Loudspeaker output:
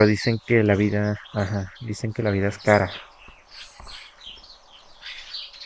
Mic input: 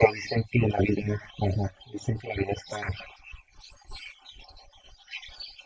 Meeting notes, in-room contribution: none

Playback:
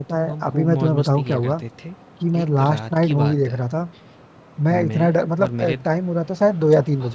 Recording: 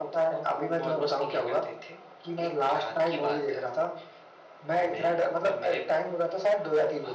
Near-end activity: none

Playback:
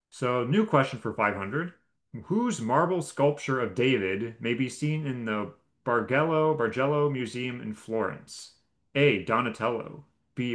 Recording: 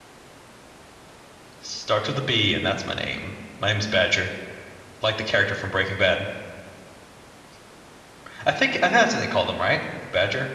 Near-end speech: present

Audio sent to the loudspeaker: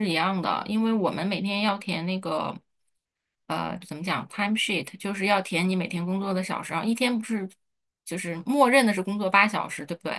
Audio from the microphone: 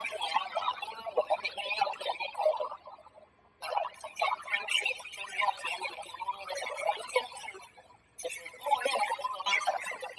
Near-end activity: none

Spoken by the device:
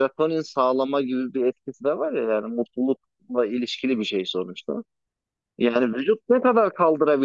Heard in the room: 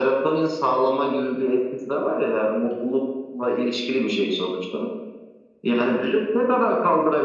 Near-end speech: none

